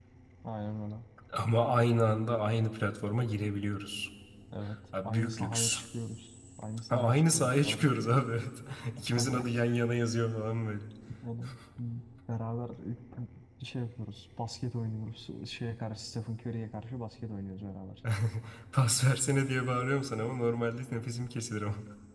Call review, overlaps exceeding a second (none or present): present